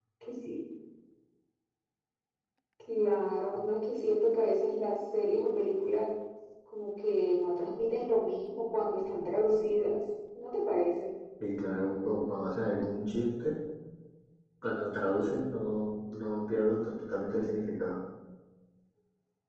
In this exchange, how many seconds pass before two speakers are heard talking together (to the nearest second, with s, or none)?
none